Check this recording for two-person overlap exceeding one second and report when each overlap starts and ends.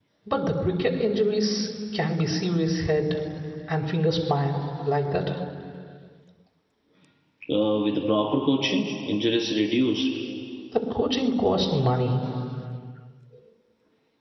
none

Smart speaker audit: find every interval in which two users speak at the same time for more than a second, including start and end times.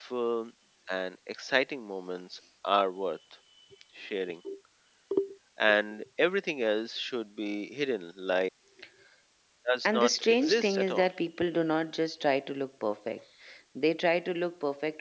9.8-11.1

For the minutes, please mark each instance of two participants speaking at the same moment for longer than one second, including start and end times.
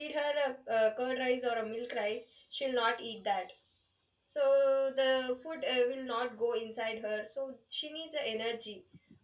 none

